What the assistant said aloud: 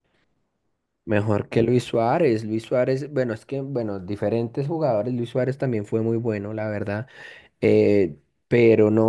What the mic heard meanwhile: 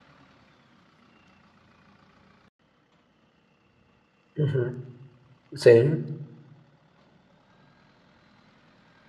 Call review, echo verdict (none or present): none